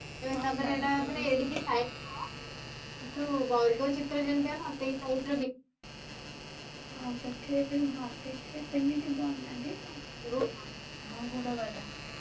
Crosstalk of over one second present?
Yes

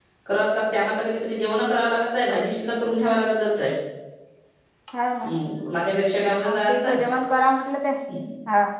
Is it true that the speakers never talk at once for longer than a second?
Yes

